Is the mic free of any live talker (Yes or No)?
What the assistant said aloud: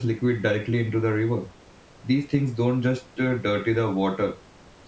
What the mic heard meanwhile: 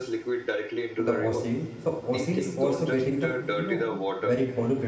No